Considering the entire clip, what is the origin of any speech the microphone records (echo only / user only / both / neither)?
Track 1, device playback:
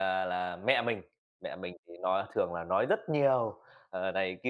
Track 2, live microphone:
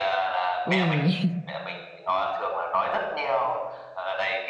both